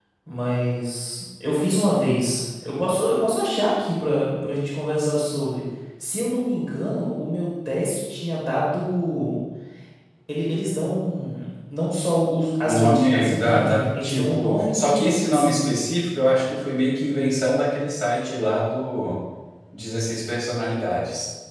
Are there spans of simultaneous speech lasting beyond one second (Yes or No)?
Yes